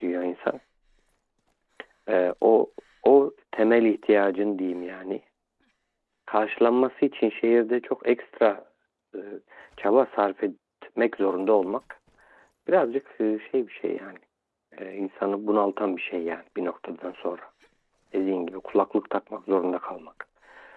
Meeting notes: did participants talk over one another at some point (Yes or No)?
No